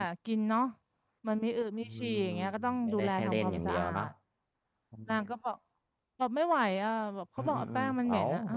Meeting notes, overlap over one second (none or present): present